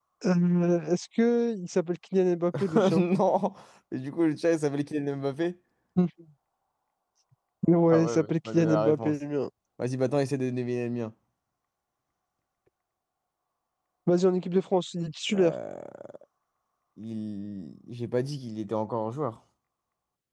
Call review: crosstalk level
present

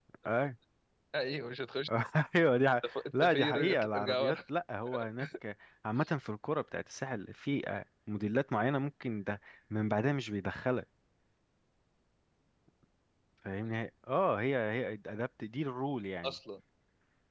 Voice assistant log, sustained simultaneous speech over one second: present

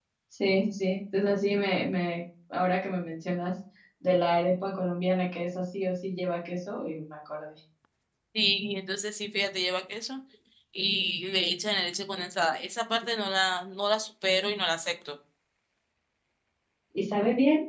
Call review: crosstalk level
none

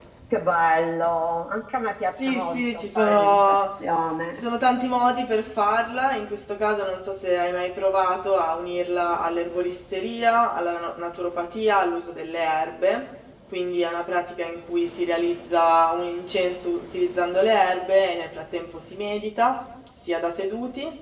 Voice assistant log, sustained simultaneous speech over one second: present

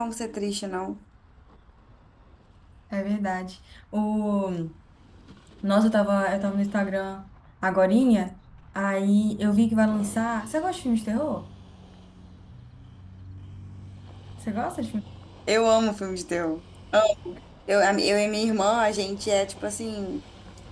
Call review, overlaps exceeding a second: none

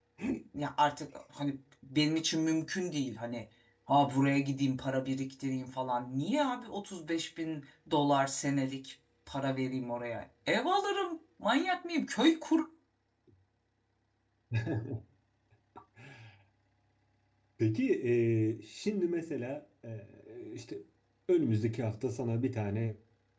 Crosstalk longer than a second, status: none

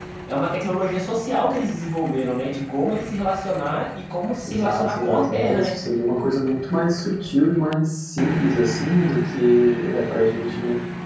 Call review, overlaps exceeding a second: present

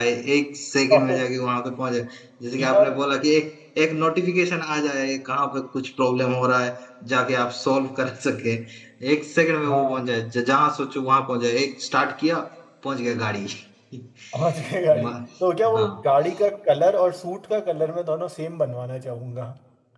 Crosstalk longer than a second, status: none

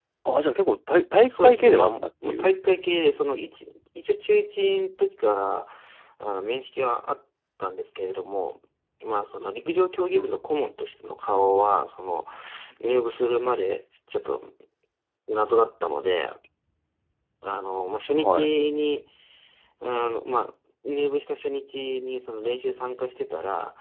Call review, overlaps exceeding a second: present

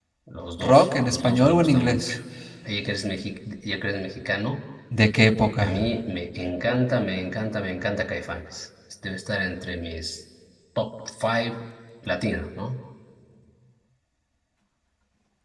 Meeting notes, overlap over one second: present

